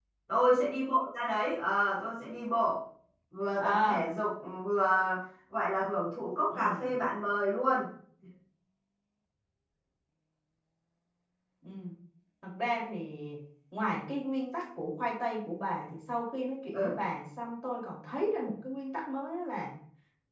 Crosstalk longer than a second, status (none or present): none